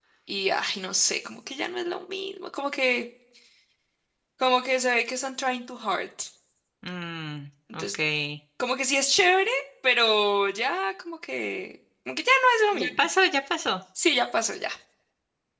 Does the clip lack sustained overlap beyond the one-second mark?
Yes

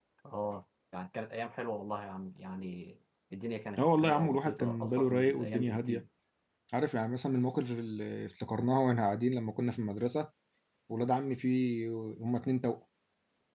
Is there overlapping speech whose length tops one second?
Yes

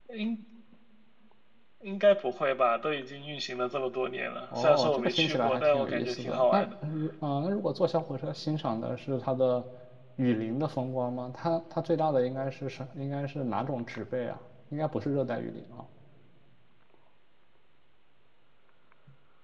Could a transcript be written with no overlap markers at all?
No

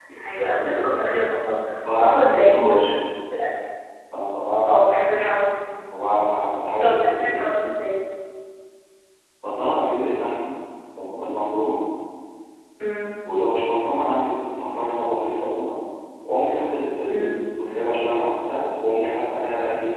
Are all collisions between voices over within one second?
No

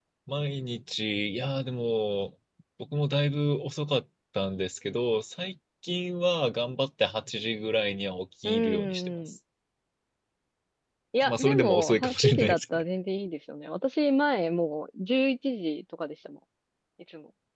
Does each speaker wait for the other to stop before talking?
No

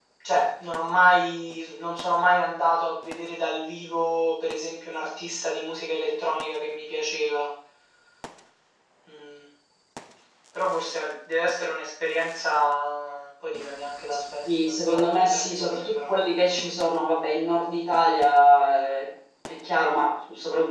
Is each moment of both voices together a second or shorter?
No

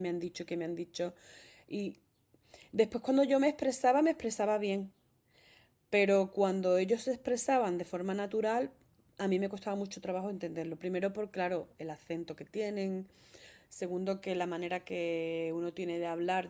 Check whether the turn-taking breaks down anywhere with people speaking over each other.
No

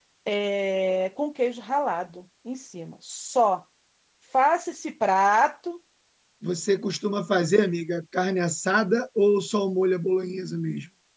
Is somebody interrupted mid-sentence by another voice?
No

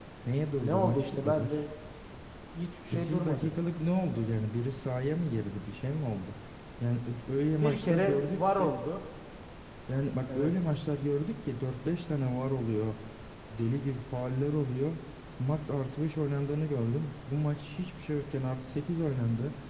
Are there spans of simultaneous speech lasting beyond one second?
Yes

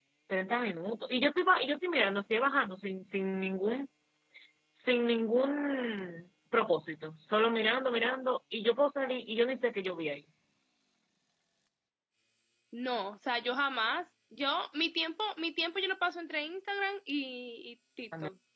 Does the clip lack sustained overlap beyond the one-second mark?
Yes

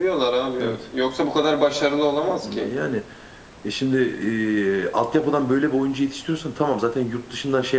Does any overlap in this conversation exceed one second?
No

